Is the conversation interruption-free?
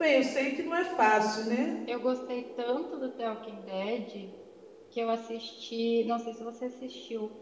Yes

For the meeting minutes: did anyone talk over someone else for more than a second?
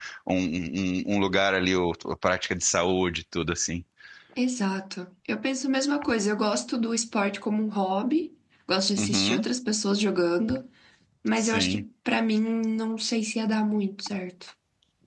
No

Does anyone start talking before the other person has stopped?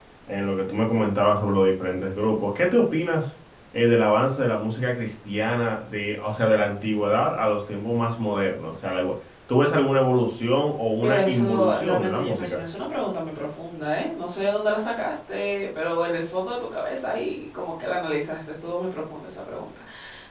Yes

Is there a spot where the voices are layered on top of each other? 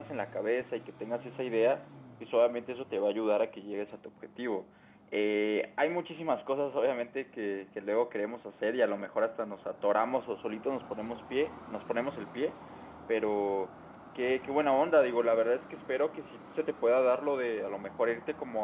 No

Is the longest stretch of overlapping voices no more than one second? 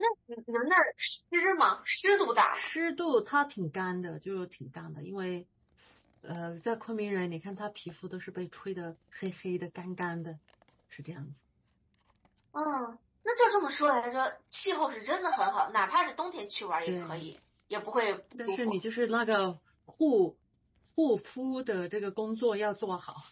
Yes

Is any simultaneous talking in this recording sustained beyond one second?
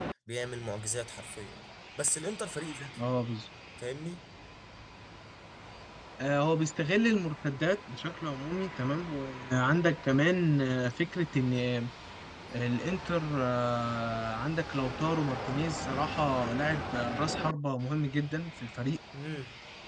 No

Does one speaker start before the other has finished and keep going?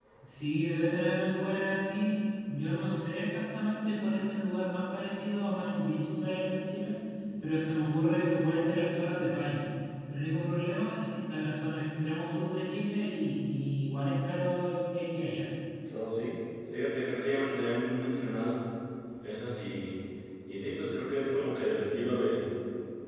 No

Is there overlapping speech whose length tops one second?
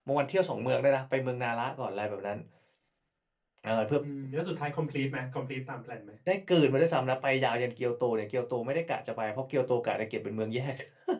No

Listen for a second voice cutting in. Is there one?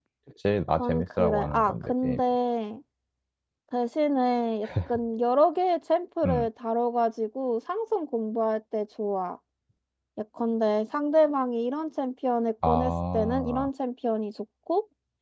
Yes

